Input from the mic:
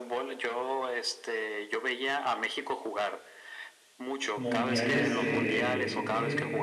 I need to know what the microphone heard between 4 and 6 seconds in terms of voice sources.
both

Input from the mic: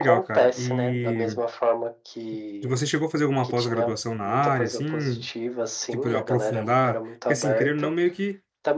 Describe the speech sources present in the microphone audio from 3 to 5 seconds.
both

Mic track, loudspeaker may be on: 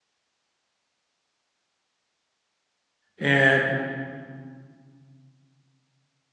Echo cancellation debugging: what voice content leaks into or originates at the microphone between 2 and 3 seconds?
neither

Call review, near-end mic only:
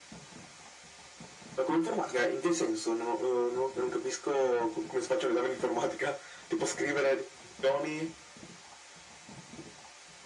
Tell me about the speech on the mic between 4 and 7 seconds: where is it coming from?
echo only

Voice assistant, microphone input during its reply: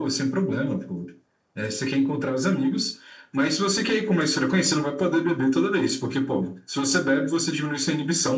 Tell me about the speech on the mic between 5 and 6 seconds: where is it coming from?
echo only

